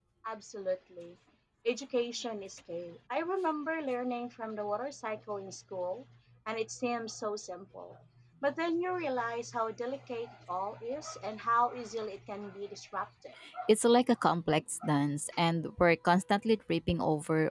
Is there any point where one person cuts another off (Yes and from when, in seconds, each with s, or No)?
No